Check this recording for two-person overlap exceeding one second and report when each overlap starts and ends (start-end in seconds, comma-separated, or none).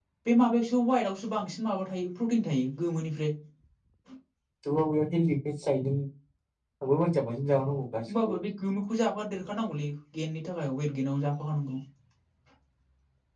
none